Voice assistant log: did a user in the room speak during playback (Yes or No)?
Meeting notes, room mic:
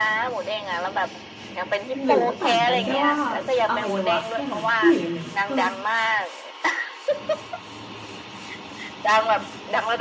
Yes